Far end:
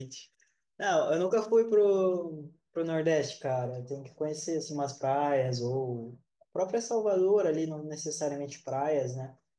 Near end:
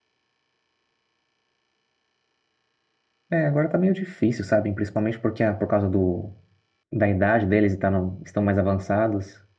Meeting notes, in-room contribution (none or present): present